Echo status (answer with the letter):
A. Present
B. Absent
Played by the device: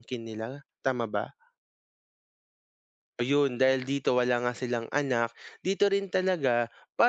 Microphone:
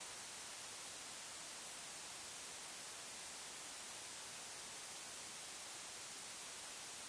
B